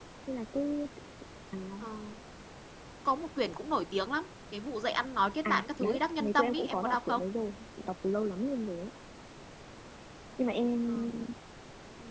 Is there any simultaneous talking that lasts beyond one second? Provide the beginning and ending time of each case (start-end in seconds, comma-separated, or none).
5.4-7.2